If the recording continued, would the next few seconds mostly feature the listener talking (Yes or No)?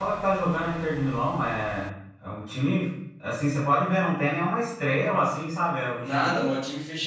Yes